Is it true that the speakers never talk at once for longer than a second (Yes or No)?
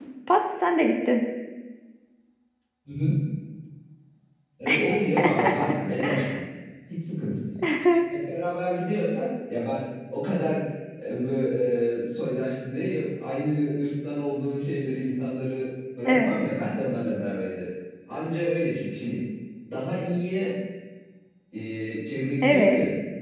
Yes